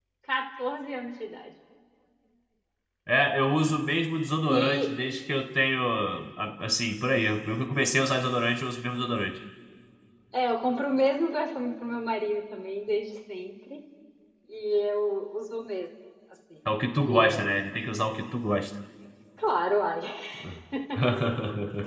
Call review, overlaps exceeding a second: none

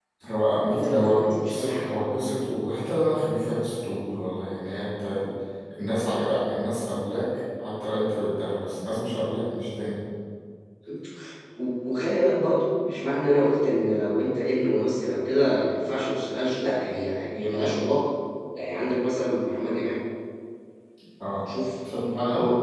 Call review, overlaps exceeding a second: present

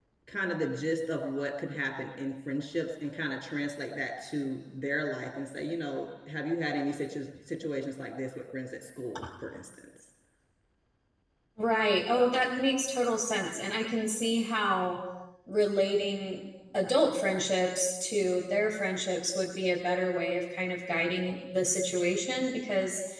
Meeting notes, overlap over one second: none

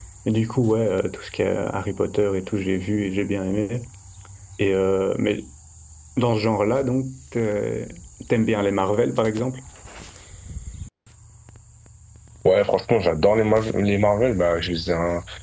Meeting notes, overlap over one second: none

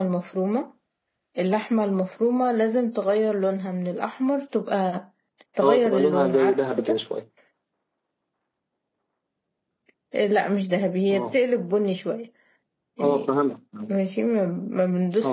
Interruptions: present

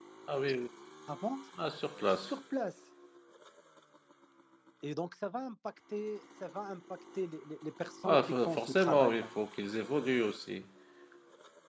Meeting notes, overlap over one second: present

